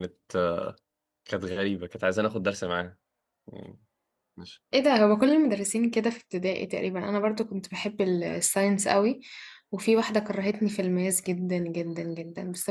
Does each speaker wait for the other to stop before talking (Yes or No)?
Yes